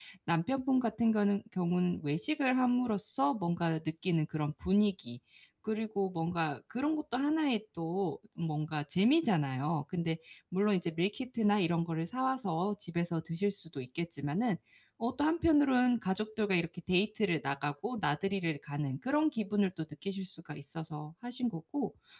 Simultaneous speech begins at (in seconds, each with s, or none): none